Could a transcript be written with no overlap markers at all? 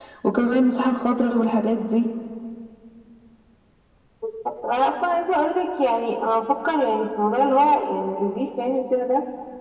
Yes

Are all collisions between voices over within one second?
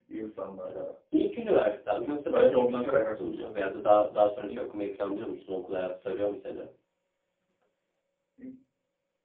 No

